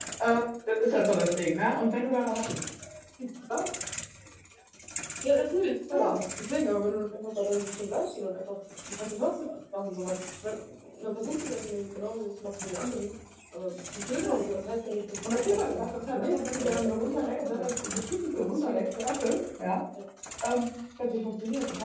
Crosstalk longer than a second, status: present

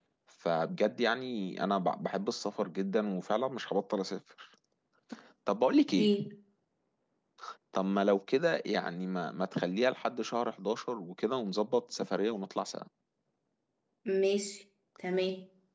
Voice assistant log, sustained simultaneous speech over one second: none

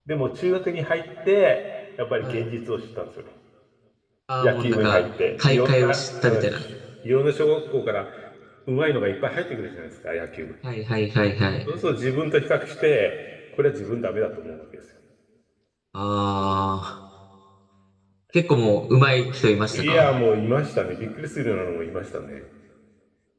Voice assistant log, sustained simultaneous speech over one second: present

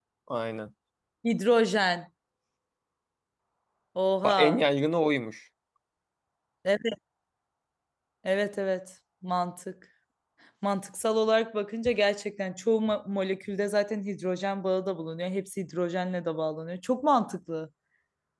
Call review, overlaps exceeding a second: none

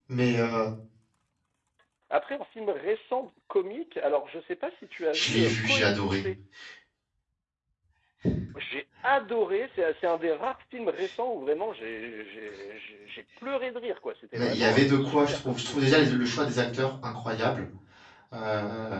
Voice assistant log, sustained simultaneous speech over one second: present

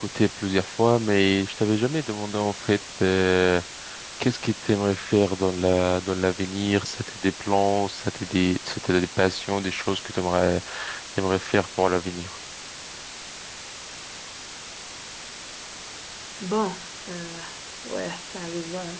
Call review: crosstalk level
none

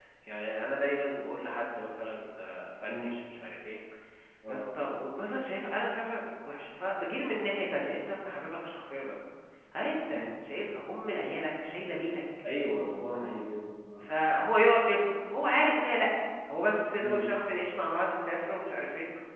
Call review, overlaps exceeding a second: none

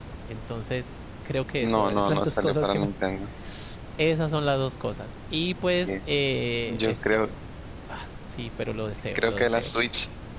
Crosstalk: present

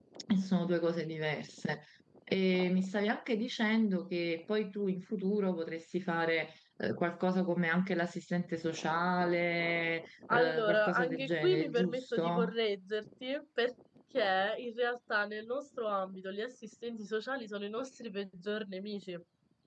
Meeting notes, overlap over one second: present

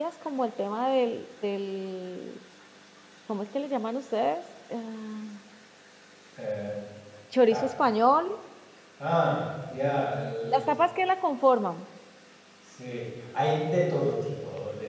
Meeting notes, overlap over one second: none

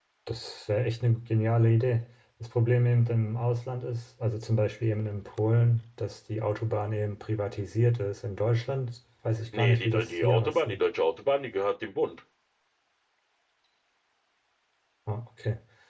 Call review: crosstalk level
present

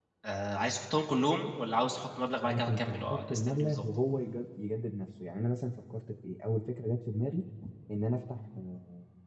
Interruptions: present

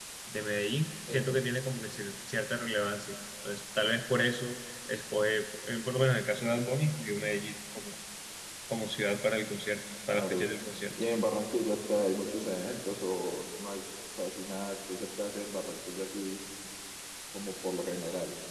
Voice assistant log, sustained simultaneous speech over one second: none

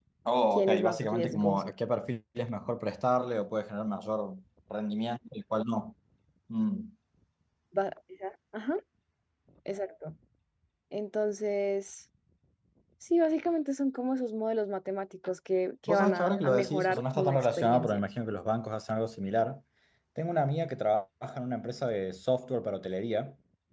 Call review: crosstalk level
present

